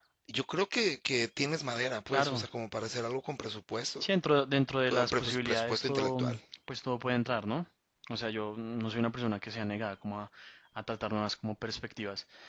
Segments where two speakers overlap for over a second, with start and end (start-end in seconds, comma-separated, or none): 4.9-6.2